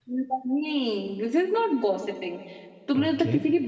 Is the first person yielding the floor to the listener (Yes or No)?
No